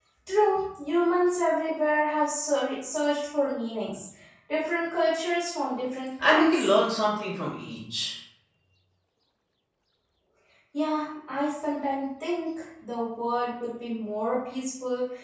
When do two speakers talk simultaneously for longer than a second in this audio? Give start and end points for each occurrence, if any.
none

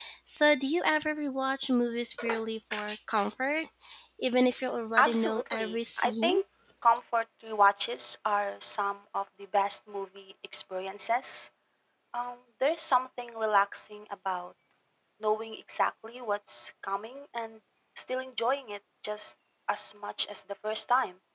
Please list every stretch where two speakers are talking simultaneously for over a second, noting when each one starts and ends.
5.0-6.4

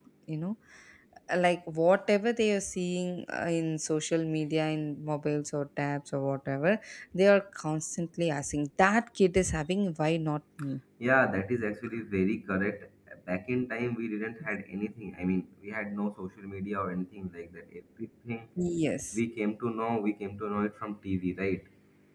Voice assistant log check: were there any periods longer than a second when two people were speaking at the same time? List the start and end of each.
none

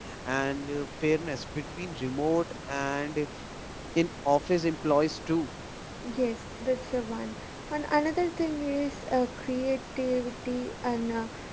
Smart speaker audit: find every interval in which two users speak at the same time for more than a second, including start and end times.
none

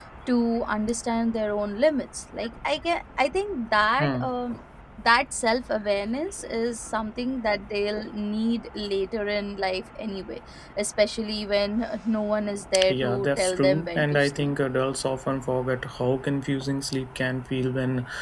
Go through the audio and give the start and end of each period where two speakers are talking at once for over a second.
12.9-14.5

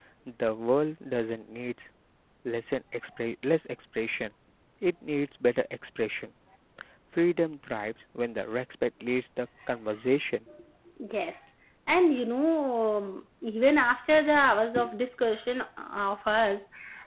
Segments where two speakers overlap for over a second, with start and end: none

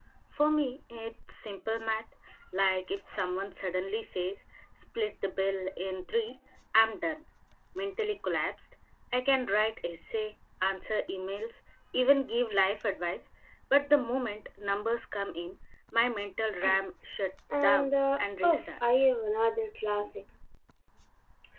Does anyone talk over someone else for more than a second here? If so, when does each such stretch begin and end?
17.6-19.1

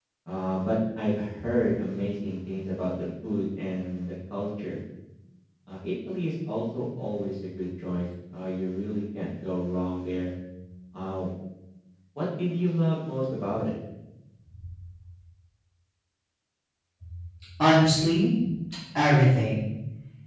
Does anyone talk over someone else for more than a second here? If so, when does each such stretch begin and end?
none

